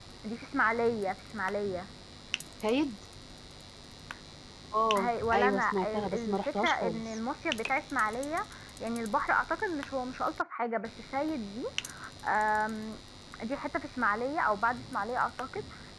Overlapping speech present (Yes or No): Yes